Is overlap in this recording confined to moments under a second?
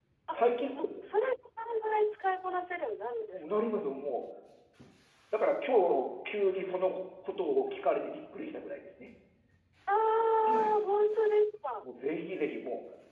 Yes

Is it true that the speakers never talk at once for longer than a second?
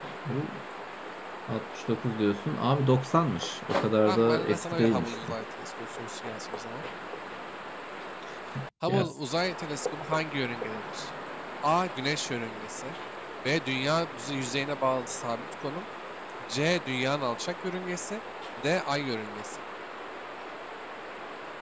No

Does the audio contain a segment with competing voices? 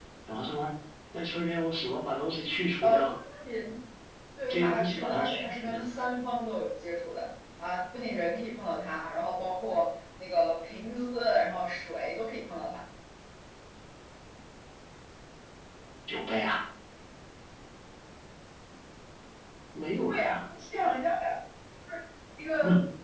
Yes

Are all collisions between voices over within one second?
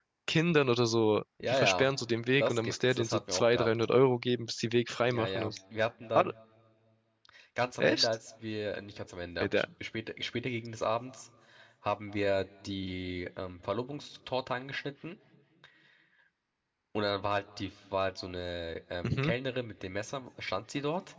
No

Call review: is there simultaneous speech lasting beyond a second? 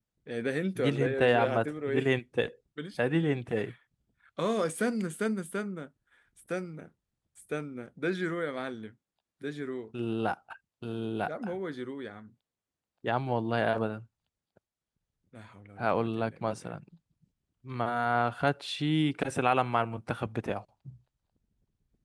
Yes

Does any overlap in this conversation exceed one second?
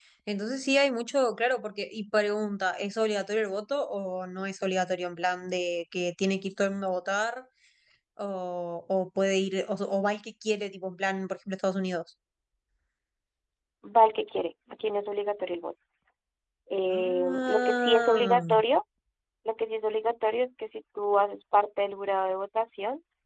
Yes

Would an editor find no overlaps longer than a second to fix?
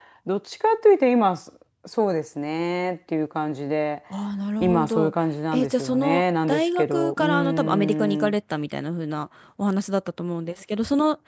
No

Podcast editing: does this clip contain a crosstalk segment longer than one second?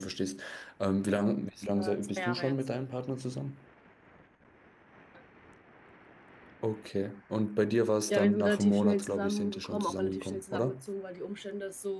Yes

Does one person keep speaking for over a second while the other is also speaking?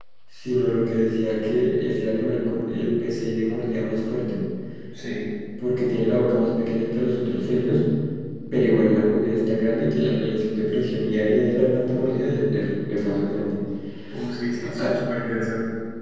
No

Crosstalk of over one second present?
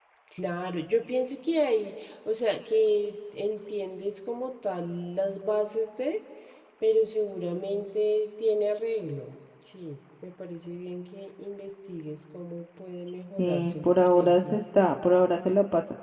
Yes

